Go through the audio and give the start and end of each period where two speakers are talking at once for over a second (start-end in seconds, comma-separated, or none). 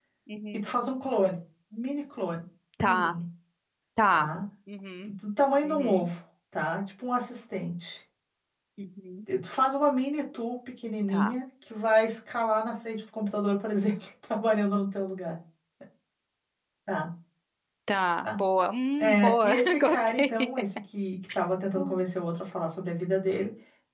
19.0-20.3